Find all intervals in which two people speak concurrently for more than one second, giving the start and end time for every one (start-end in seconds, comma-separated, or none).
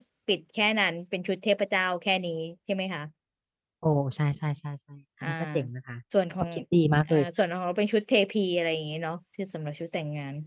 none